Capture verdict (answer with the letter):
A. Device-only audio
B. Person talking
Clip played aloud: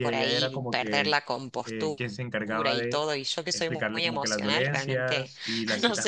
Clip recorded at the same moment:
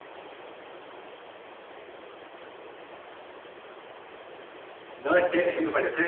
B